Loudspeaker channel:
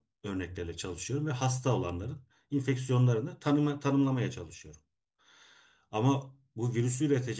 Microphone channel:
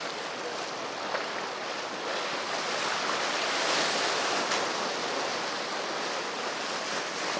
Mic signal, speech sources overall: neither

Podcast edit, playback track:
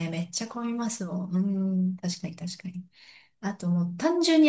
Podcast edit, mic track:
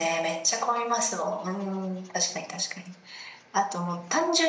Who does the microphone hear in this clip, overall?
echo only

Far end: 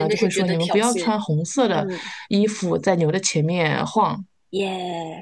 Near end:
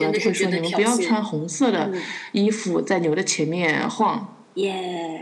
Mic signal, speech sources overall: echo only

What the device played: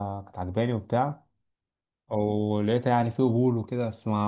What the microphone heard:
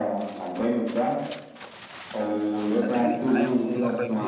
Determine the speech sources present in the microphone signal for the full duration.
both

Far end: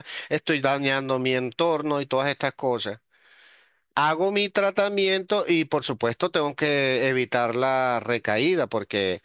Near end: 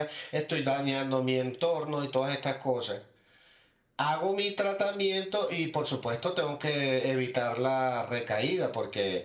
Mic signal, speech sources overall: echo only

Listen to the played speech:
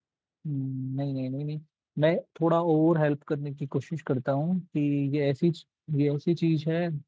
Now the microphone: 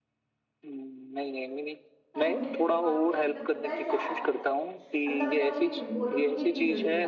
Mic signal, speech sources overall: both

